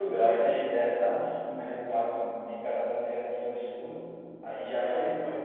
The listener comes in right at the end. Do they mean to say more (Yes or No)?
No